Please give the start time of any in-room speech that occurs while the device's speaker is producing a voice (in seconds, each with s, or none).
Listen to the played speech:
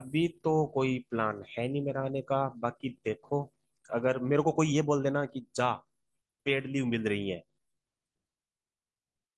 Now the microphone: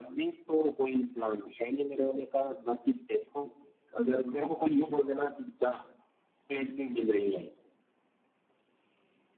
none